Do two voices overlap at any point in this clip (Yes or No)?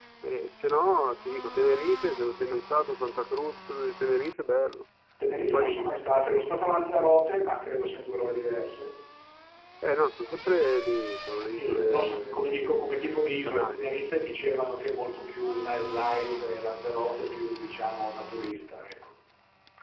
Yes